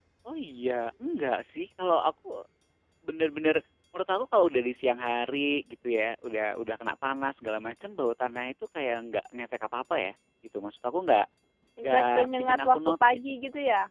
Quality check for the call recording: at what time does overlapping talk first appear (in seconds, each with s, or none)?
11.8 s